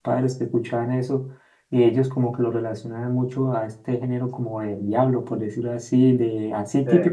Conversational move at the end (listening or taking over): listening